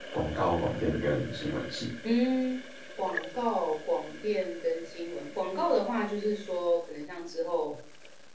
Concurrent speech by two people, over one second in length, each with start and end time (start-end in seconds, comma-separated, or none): none